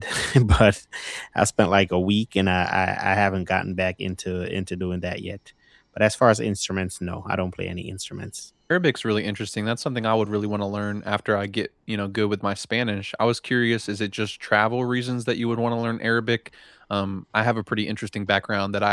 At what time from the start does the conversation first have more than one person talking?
none

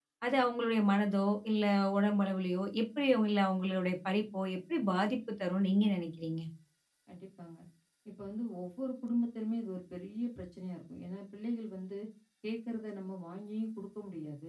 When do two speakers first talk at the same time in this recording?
none

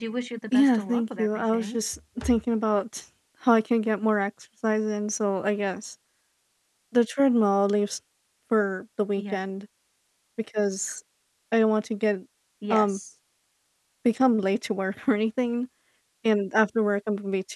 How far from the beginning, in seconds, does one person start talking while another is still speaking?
1 s

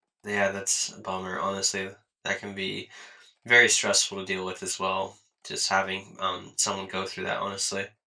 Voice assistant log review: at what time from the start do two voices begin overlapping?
none

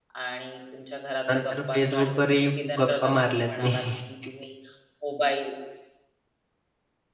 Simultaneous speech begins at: 1 s

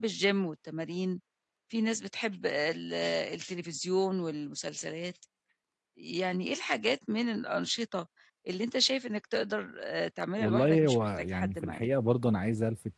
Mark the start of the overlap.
10 s

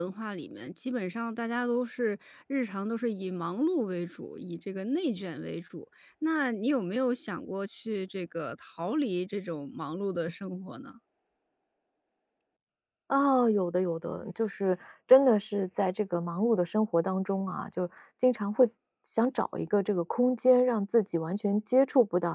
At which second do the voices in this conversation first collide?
none

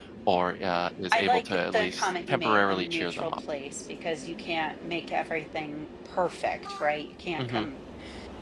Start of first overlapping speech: 1 s

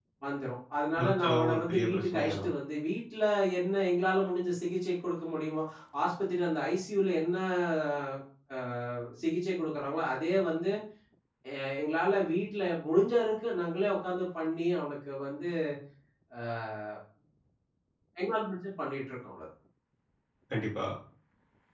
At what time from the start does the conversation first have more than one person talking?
1 s

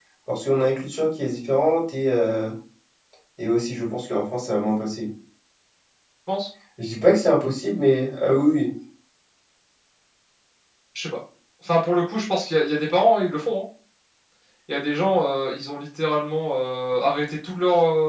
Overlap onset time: none

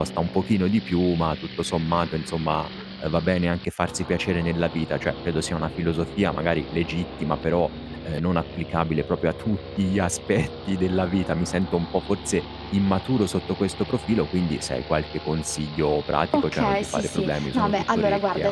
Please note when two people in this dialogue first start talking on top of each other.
16 s

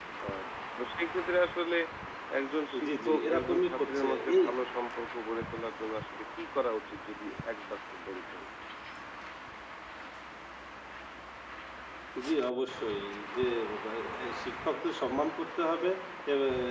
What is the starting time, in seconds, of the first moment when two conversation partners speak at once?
3 s

